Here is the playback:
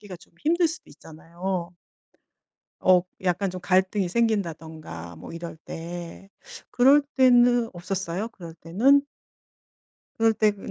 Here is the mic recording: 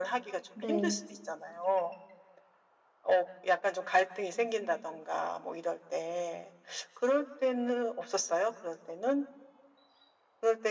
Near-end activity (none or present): present